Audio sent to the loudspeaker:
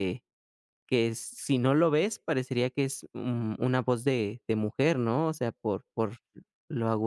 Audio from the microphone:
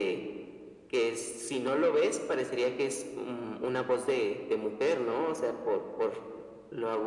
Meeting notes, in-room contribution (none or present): none